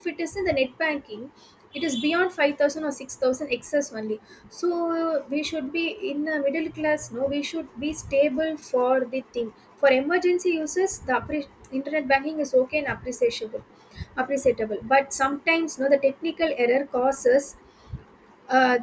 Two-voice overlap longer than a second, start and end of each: none

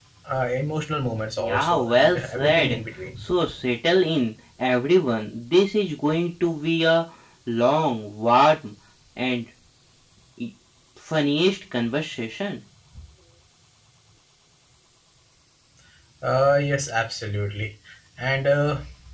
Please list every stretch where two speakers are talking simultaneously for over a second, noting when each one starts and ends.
1.4-2.8

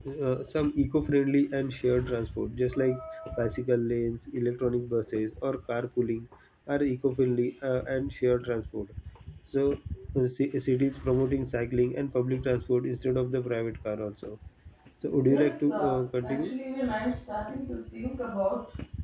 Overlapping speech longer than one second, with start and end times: 15.2-16.5

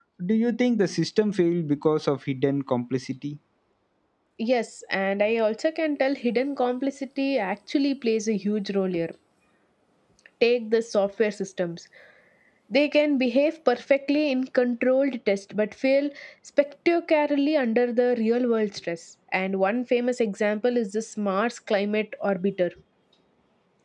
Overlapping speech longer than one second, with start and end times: none

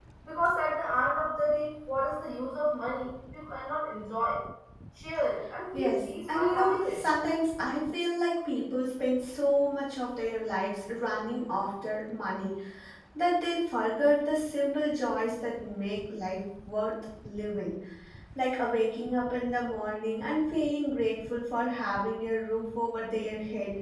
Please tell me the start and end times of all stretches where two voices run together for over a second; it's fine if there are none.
5.7-7.0

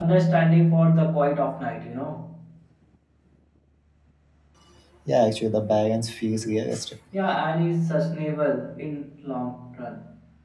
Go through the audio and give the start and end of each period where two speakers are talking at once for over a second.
none

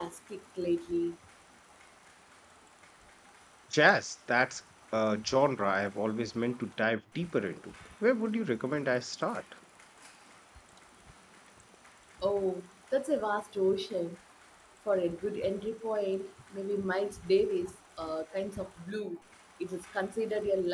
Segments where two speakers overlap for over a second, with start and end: none

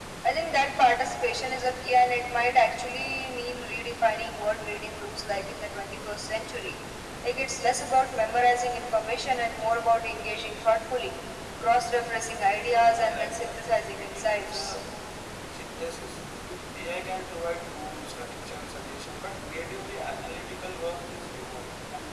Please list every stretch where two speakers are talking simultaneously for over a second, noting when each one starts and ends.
12.7-14.7

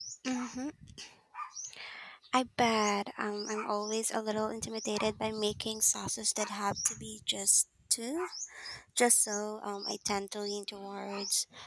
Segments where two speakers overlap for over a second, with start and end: none

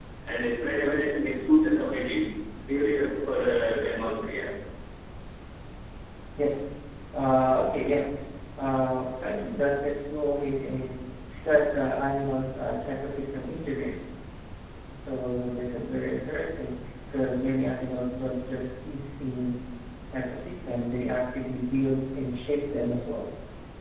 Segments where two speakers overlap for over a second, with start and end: none

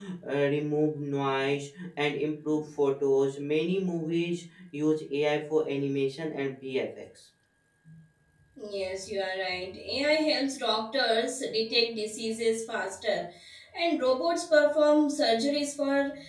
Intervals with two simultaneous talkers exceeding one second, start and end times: none

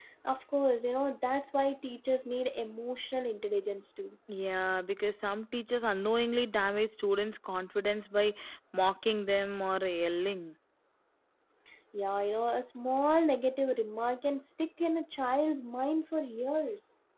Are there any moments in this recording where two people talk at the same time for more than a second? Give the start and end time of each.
none

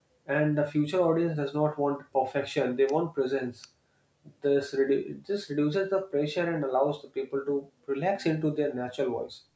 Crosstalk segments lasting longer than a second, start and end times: none

